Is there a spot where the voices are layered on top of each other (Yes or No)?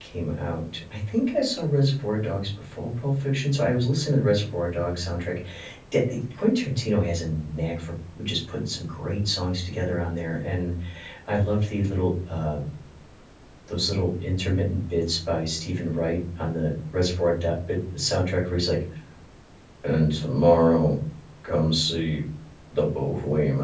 No